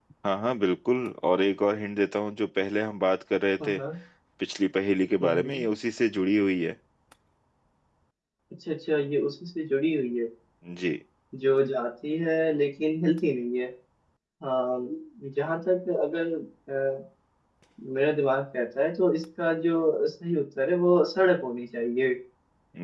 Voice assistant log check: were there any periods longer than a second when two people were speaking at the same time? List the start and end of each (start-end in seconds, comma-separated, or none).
none